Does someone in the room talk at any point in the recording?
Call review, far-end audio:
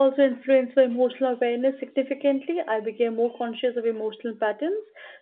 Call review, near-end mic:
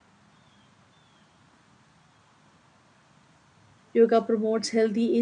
Yes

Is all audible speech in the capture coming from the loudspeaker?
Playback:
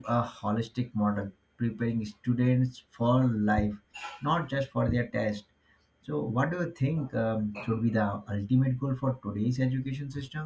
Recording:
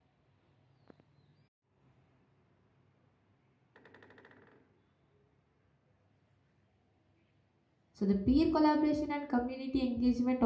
No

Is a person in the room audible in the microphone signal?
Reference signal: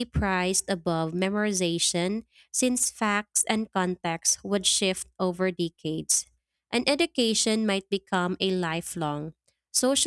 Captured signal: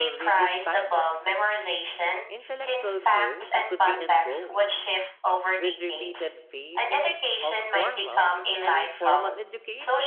Yes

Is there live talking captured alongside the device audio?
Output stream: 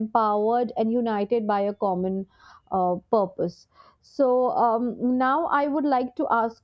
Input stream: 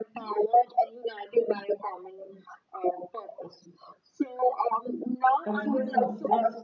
Yes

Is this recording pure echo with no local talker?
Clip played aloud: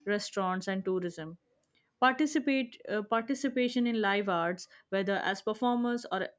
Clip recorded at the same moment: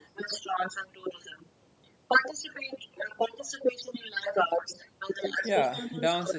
No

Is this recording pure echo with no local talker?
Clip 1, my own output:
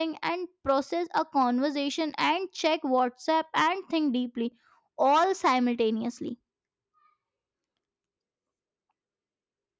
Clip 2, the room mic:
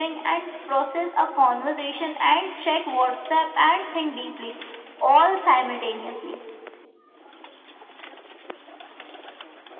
Yes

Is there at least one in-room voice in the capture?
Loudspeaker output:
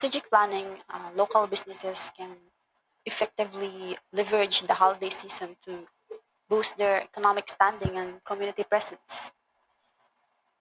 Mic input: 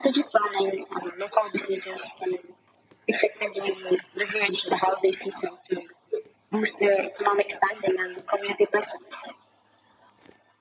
No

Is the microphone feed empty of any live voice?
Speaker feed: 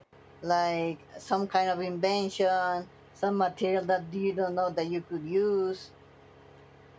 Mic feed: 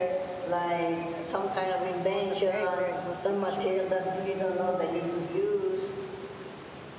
No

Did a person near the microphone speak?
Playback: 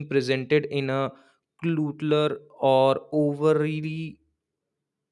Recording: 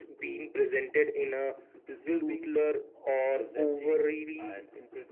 Yes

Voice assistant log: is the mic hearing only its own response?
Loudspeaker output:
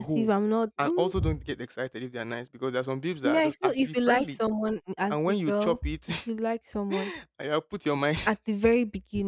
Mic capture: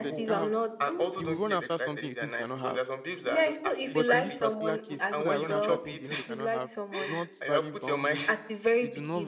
No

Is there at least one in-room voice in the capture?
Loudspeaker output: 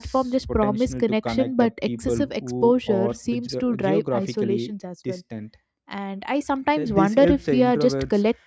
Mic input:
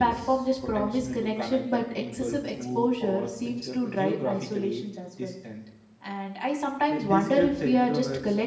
No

